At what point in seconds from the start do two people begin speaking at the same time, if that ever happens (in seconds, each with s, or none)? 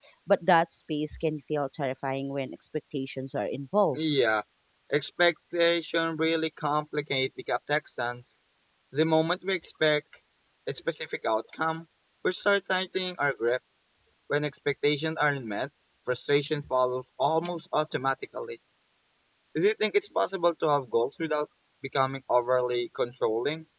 none